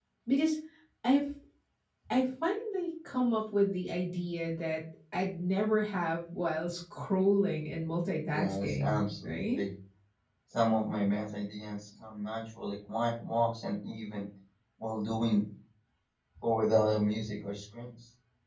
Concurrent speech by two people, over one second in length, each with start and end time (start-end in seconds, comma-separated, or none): 8.3-9.6